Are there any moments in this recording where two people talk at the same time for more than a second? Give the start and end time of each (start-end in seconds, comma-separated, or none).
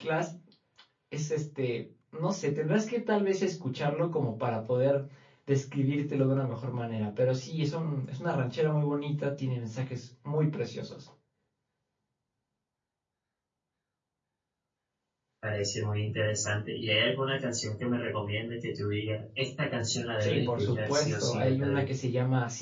20.2-21.9